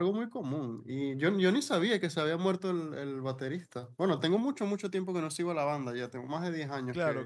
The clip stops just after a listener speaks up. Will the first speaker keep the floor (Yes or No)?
No